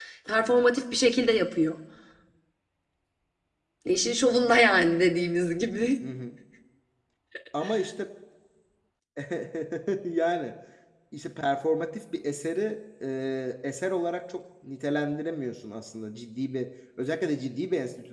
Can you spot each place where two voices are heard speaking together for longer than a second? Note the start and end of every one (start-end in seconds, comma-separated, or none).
none